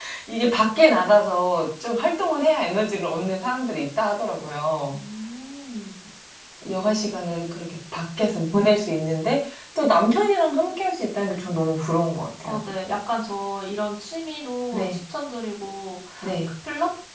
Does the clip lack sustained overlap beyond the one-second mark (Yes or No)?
Yes